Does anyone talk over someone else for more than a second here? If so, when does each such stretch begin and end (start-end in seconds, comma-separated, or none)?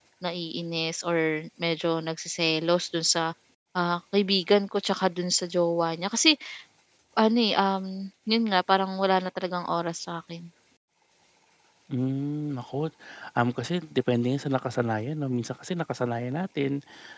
none